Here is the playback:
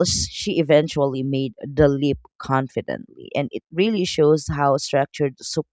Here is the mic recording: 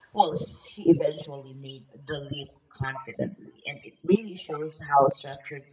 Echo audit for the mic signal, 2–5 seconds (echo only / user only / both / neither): echo only